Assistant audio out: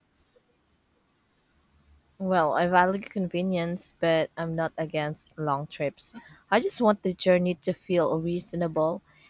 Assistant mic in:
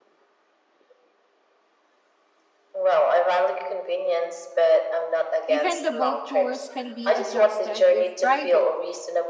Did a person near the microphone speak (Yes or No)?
Yes